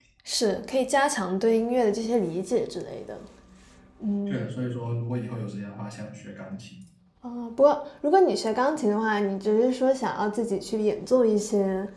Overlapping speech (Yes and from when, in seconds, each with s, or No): No